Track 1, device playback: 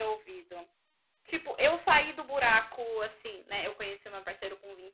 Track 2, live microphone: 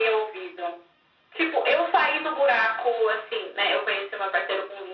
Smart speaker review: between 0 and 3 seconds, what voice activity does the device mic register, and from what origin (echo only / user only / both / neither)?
echo only